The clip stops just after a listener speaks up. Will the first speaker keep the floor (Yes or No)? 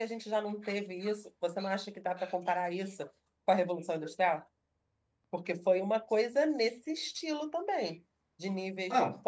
Yes